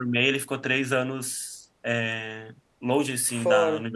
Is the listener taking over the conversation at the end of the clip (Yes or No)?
No